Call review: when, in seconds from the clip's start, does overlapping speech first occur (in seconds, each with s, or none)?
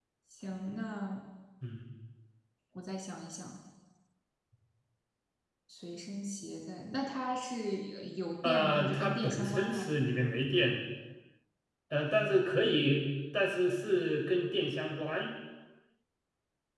8.4 s